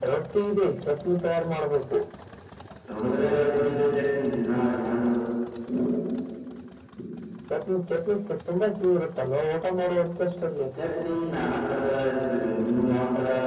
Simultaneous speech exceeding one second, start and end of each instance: none

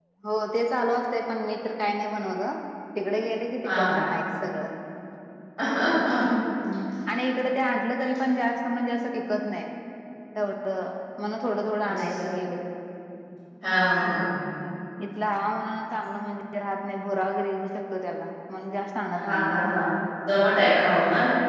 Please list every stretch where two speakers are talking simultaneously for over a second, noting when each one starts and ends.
none

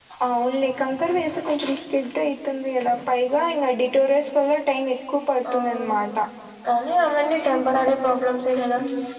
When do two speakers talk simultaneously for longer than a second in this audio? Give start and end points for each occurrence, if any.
none

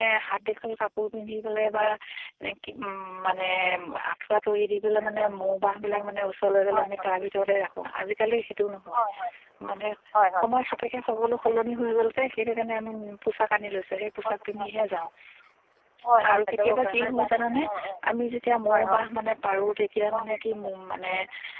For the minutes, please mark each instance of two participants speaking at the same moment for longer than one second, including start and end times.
16.3-17.6

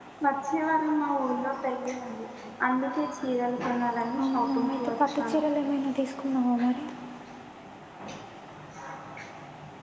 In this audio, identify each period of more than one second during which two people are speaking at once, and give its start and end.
4.2-5.4

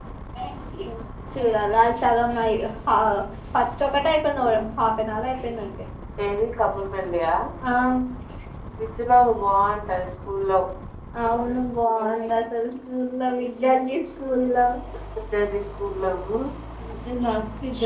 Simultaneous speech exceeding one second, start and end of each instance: none

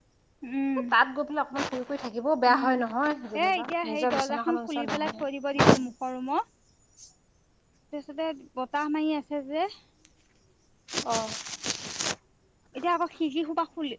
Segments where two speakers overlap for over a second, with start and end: 3.4-5.2

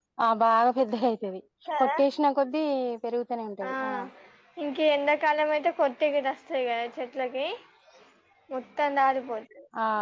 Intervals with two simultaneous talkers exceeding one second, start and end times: none

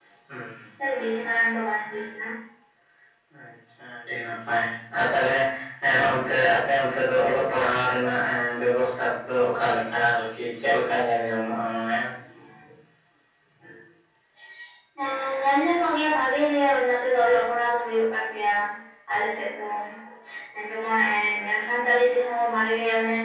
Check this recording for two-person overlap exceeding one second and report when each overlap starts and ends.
none

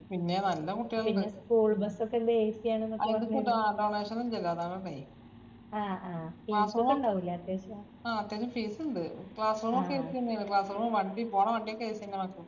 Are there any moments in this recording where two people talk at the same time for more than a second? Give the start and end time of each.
none

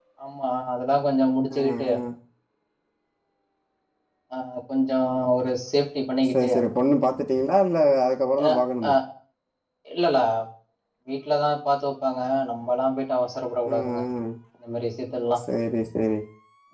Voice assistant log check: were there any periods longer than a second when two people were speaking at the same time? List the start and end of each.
none

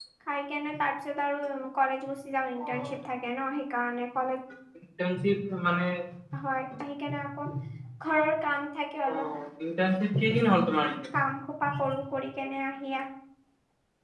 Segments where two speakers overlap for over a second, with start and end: none

